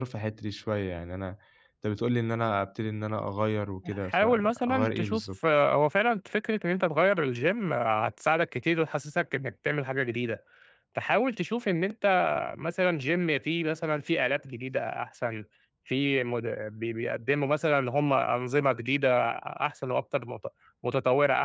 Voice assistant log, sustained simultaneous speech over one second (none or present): present